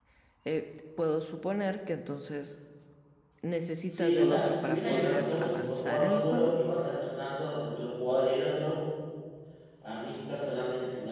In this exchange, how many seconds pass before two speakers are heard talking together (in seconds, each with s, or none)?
3.9 s